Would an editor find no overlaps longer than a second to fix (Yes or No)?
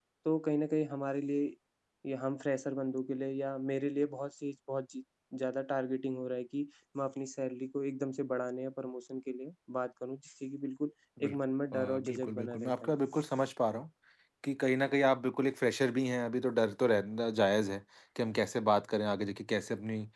No